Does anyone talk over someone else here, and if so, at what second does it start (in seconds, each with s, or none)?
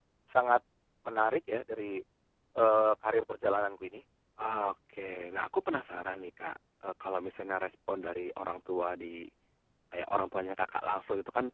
none